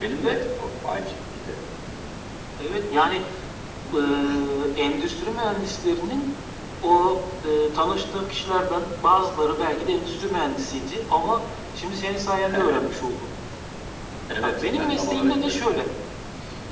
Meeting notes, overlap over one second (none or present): present